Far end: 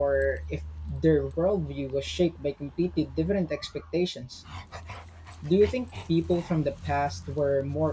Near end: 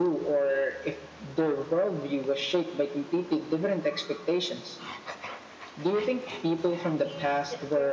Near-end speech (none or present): present